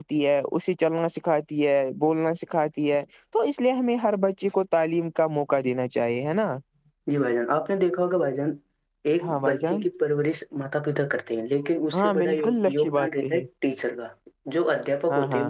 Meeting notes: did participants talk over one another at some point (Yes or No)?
Yes